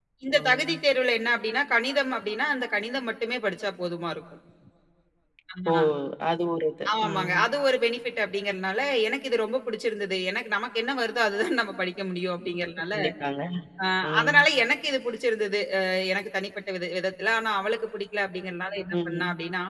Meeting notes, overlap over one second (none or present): none